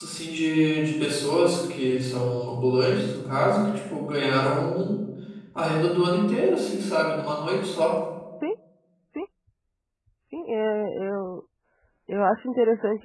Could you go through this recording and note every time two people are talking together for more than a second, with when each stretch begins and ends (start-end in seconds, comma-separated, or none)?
none